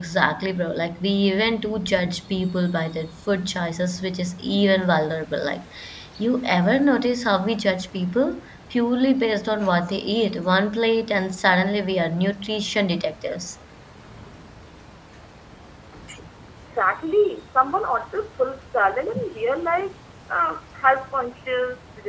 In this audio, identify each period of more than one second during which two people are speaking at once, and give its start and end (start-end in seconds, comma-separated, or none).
none